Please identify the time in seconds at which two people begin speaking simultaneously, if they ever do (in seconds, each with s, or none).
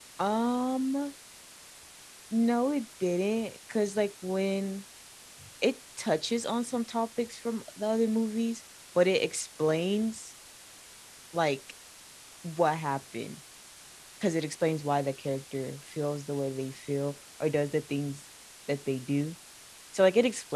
none